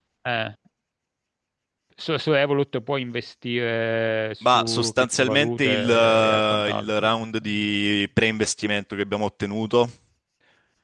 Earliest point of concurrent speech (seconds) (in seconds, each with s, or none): 4.4 s